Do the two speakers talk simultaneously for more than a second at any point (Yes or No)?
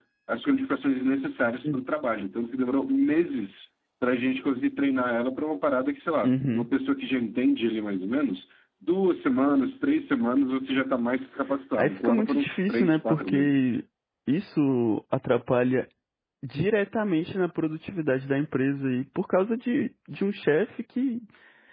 Yes